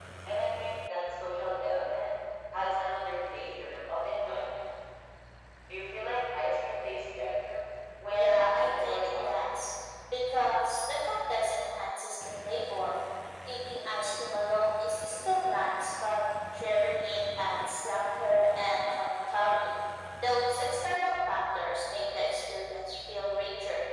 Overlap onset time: 8.1 s

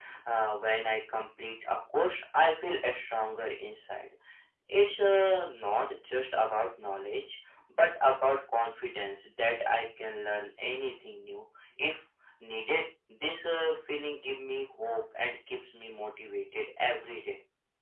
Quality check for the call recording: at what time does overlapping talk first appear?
none

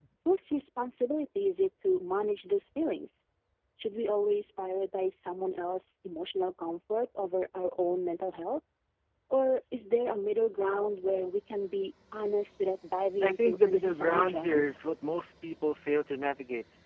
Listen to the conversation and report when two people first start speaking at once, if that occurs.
13.2 s

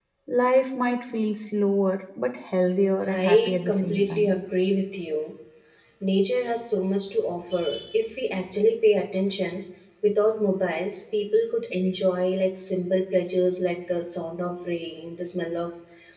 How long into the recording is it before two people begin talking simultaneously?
3.1 s

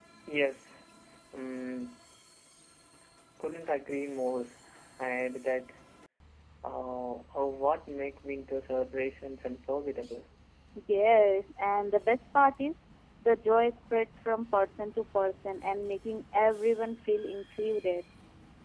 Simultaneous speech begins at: none

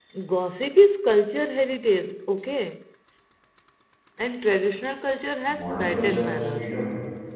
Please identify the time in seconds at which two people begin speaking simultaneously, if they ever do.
5.5 s

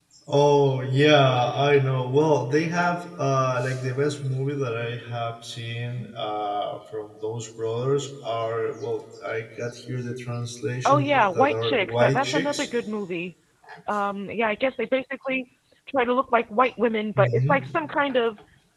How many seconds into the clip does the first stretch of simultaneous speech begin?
10.8 s

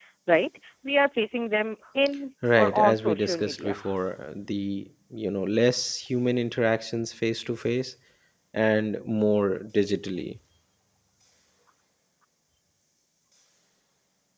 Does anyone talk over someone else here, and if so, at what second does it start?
2.4 s

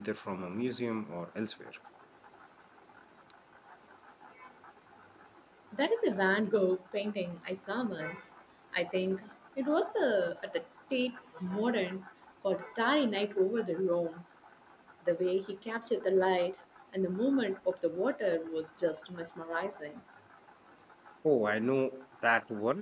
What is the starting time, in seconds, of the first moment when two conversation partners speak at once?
none

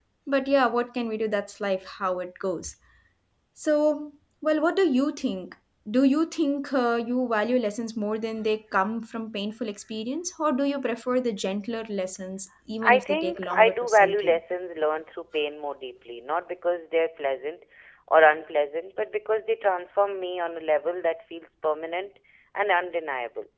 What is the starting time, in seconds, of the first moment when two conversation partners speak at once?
12.8 s

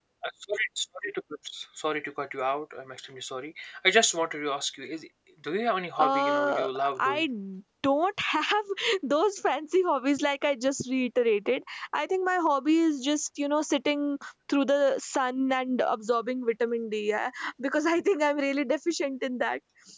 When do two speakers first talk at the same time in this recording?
6.0 s

